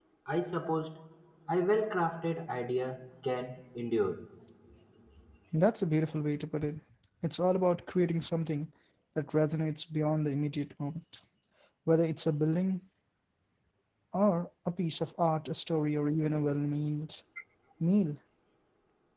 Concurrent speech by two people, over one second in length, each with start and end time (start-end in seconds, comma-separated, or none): none